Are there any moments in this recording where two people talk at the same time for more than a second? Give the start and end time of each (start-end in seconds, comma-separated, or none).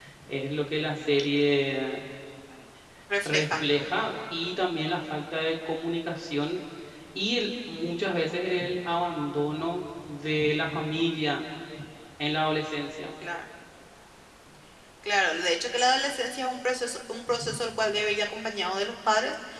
none